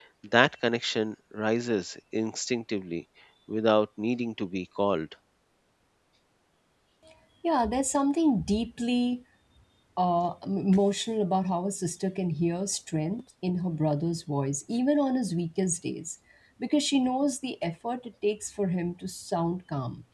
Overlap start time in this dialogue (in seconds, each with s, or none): none